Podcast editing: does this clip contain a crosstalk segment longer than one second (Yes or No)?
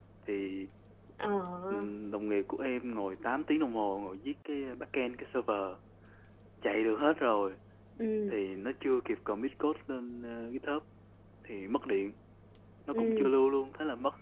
No